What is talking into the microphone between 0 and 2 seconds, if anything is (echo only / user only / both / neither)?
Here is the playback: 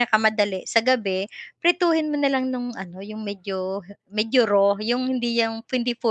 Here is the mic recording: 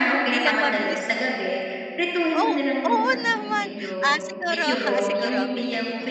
both